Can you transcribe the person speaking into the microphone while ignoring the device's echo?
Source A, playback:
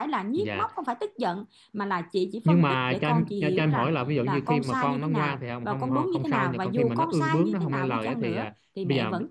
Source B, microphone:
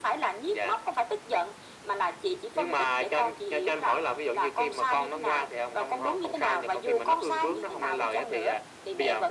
none

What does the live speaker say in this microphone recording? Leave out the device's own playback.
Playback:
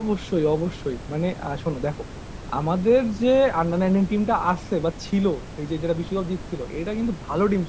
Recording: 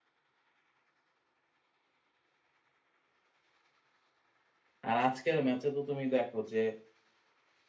আর আজকের ম্যাচে তো তুমি দেখো যে

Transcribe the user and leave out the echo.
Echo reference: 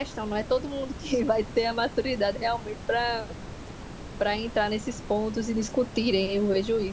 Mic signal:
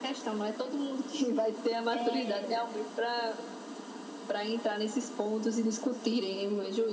é

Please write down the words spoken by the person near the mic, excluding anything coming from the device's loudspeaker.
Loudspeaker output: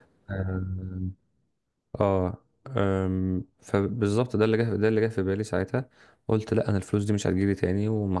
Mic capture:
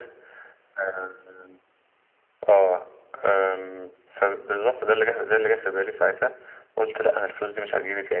none

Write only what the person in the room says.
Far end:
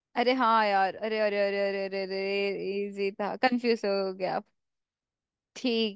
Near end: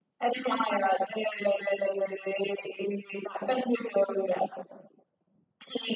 none

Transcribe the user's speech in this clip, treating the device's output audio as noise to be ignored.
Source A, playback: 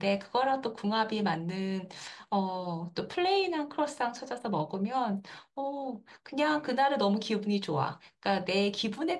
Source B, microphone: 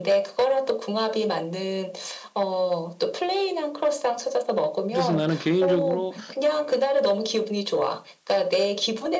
그래서 나는 개인적으로

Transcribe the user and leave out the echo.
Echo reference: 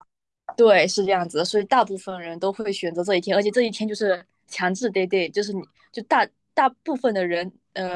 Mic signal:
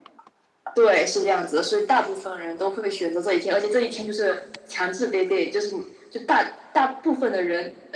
none

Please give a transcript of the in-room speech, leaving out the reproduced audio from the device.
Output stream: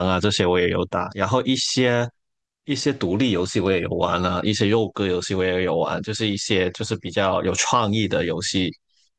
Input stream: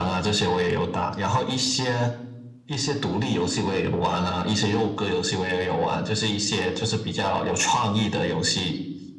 none

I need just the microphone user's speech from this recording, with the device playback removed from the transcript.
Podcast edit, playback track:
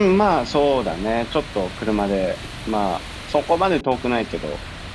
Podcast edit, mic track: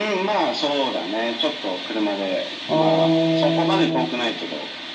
あー、

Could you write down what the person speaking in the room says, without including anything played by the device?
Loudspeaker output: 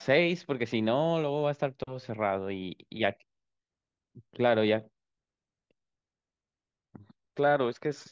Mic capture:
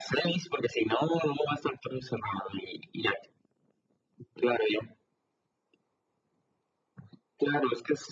none

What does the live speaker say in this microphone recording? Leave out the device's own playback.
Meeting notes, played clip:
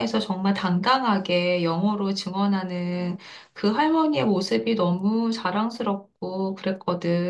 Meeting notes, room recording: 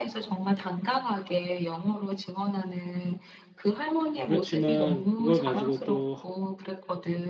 그렇지만 그걸 가지고 또

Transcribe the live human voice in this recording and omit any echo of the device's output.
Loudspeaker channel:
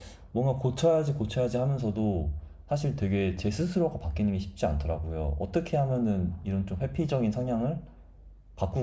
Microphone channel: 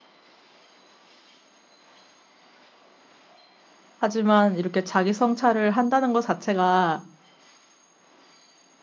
하지만 이렇게 자기 성찰을 한다는 것 자체가

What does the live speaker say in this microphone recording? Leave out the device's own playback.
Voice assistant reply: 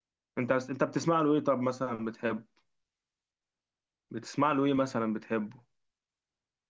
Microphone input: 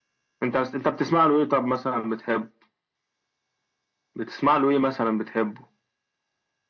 none

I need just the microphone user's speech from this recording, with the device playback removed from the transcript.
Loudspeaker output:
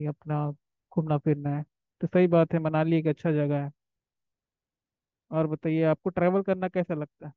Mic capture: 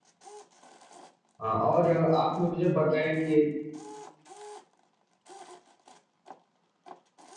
हाँ और अ, आप मुझे बताएं कि

